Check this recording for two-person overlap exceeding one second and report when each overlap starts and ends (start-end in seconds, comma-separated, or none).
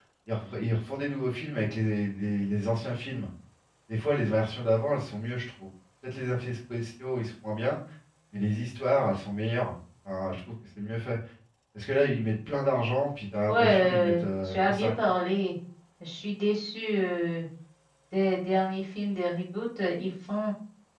13.5-15.1